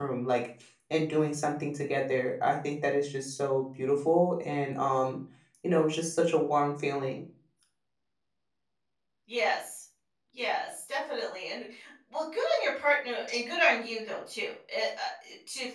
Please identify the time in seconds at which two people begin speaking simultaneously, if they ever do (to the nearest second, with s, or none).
none